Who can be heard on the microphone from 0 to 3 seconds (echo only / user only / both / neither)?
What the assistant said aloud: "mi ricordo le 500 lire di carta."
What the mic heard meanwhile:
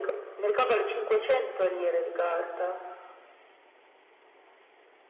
echo only